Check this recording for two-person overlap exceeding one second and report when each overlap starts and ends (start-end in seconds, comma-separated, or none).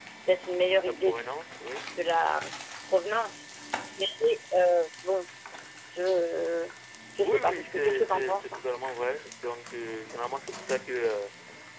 7.2-8.6